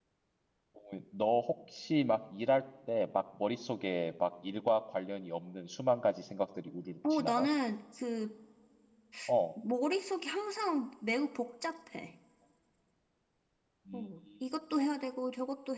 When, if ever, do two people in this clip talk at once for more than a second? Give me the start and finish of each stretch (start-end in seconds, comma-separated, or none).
none